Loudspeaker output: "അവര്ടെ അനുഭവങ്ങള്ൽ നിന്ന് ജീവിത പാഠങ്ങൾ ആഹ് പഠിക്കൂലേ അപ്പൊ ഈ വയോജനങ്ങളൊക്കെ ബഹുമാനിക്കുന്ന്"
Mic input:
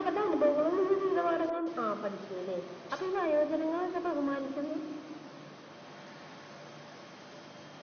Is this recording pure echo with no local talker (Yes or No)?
Yes